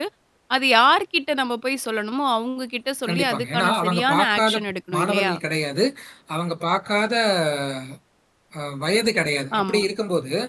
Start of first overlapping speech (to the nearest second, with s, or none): 3 s